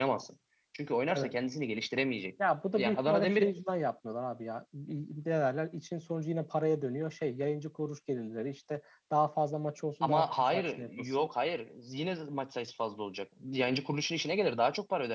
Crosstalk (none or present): present